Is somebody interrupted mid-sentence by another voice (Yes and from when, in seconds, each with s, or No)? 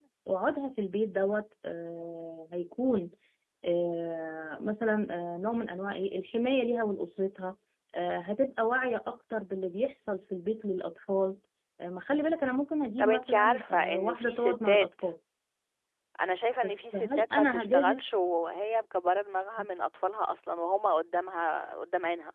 Yes, from 13.0 s